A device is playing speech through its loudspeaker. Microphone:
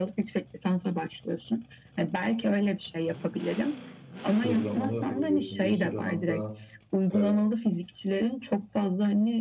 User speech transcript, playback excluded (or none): e, programlama yapabiliyorsun. Bir sürü alanda e,